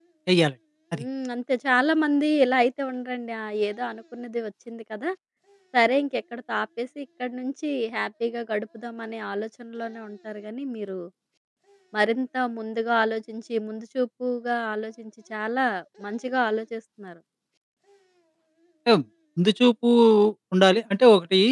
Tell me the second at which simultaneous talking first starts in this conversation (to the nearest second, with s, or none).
none